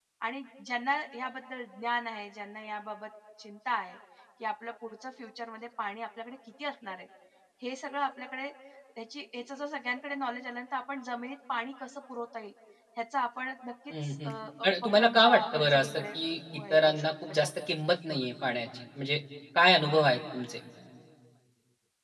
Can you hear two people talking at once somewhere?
Yes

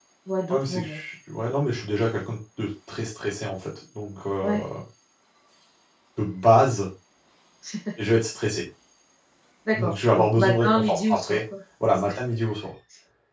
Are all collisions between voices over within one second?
No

